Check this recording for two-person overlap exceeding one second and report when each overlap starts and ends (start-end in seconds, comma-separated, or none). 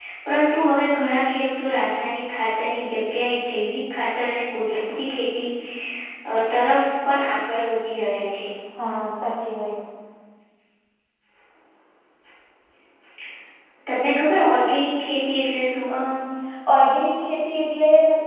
none